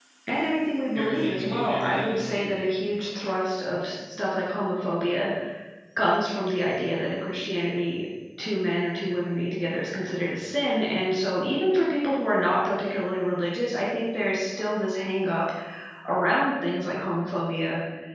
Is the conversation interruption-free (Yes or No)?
No